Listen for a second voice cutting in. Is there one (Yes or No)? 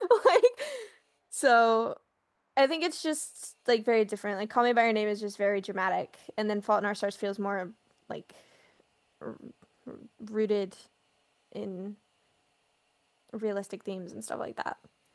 No